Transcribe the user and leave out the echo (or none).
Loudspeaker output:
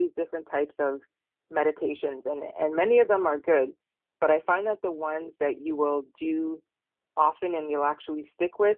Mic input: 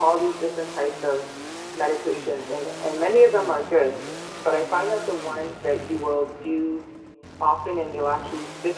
none